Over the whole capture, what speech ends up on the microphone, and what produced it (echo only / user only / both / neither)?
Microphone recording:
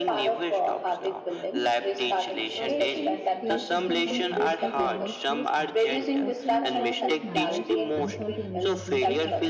both